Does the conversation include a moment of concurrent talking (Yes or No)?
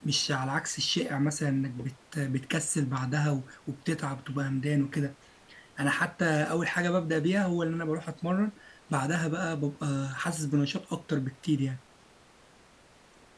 No